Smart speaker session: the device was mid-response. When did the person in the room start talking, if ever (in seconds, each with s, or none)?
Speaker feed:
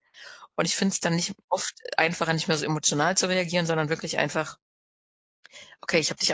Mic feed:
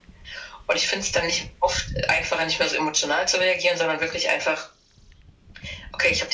none